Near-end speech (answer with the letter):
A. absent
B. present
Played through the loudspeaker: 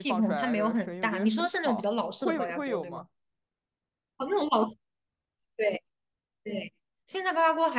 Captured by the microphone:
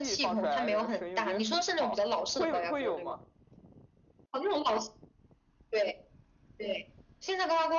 A